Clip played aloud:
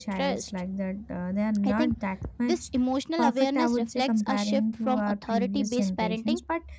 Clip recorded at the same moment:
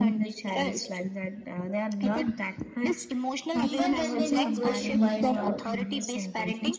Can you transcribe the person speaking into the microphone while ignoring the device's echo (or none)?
even when they know growth requires struggle.